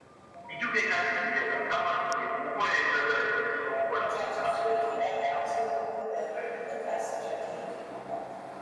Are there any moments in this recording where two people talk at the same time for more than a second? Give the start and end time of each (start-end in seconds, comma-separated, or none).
3.7-5.5